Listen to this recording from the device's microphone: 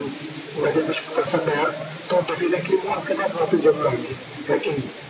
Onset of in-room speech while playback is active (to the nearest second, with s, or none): none